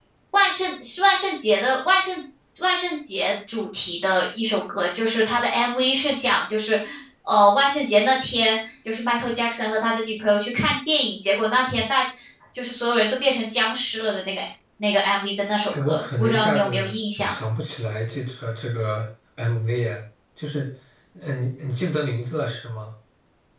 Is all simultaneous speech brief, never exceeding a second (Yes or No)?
No